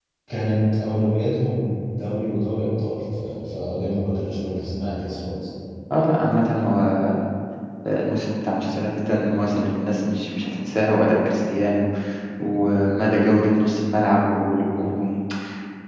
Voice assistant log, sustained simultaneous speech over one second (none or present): none